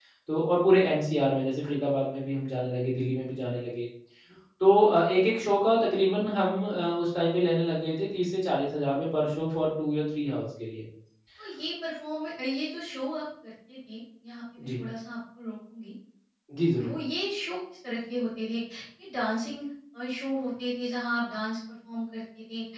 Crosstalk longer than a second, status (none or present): none